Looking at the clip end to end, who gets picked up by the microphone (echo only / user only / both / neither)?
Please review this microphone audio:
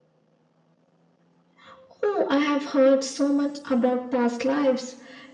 echo only